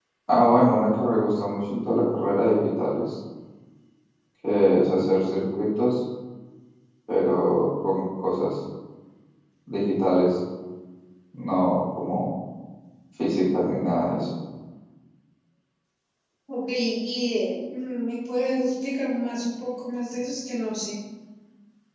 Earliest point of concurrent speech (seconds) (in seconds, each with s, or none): none